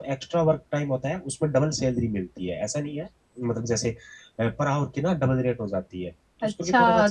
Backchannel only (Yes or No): No